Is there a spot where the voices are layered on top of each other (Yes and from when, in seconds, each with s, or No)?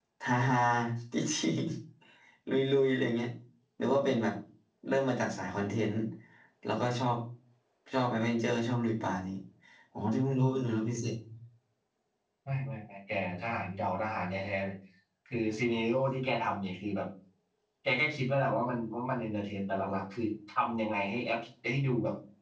No